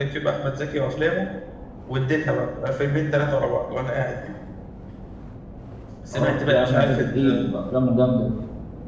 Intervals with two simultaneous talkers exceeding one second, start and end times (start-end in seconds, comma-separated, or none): 6.1-7.4